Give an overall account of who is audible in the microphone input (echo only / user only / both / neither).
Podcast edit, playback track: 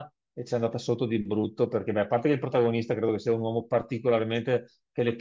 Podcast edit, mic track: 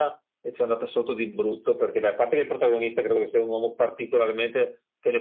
echo only